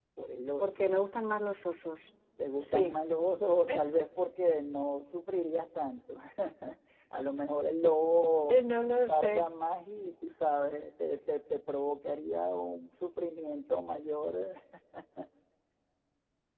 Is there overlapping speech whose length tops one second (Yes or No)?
No